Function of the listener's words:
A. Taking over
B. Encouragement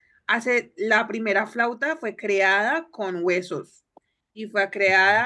B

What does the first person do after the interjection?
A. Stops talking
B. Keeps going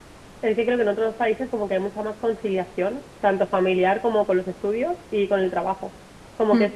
B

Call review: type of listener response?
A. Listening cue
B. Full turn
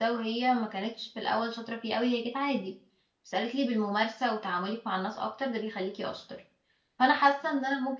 A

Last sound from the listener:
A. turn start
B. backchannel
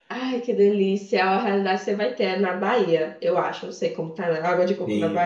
A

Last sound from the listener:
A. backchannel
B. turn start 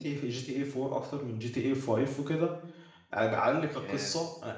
A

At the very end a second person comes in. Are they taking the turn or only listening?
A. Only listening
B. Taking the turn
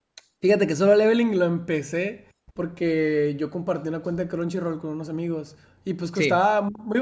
A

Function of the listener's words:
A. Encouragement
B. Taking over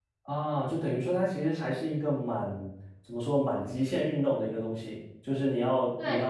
A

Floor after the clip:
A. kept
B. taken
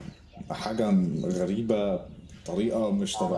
B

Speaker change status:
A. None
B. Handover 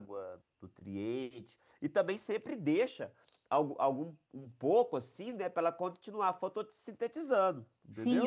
B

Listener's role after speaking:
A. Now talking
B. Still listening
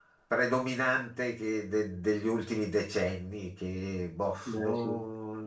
B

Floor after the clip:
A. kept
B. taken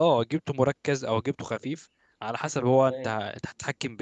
A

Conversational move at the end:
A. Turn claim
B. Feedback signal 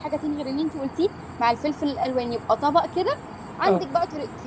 B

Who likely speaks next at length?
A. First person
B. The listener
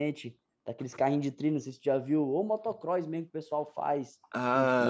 B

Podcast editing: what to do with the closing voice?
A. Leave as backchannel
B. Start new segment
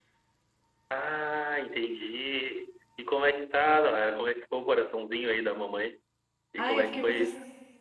B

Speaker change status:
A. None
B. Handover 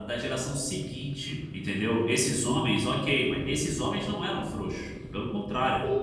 B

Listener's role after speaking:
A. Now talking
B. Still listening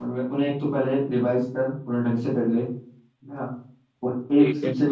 B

